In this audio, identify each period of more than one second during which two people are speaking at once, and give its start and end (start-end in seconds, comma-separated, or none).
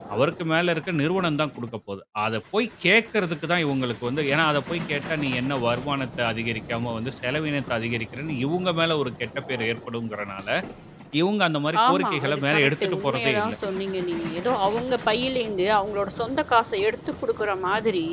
11.9-13.5